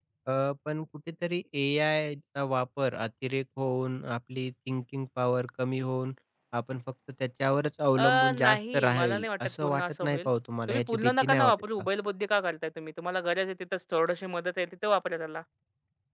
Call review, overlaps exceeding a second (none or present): present